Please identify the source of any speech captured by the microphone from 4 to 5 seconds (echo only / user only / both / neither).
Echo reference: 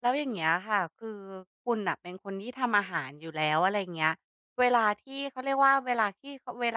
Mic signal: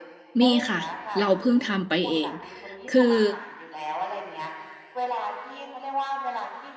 echo only